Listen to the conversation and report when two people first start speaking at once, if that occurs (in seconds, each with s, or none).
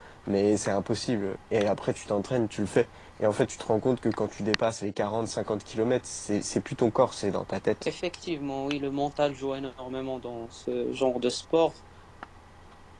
none